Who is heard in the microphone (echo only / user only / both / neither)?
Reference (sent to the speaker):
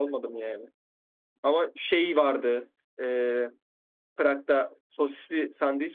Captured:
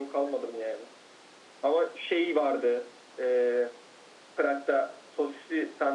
echo only